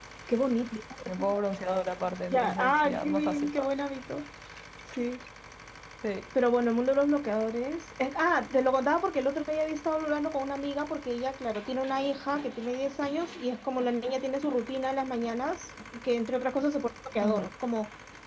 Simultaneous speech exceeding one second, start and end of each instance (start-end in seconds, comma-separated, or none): 2.3-3.7